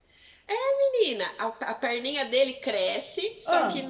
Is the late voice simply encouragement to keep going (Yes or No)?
Yes